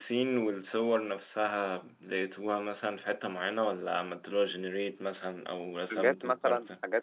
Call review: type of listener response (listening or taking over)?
taking over